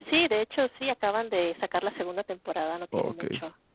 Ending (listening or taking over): taking over